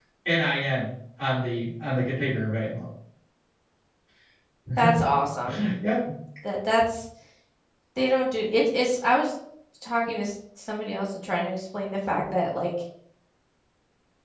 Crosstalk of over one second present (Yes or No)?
No